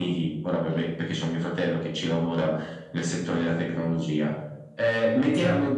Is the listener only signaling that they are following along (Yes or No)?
Yes